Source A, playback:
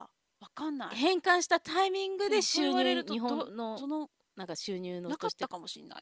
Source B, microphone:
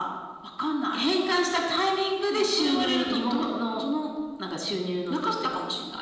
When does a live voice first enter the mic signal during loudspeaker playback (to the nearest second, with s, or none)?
none